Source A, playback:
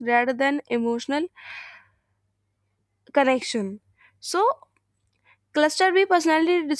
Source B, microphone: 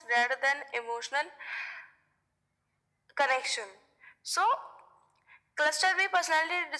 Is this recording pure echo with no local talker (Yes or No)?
Yes